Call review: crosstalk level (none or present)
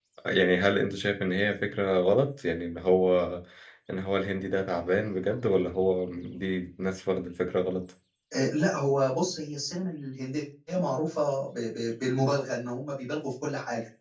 none